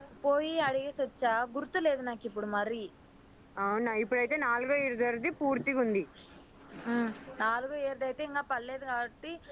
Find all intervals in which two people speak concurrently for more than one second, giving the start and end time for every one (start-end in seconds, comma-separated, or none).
none